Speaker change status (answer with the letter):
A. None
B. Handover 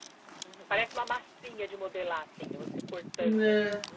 B